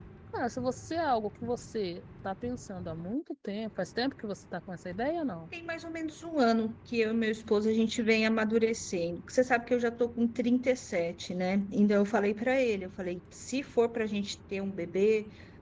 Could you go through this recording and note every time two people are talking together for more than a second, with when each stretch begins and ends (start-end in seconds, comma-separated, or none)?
none